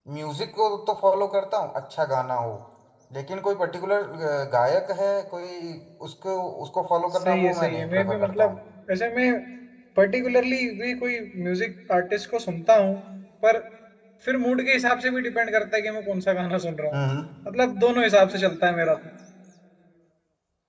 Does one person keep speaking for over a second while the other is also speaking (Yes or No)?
Yes